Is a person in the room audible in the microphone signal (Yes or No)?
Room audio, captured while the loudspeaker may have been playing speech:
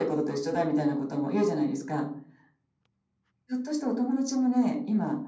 No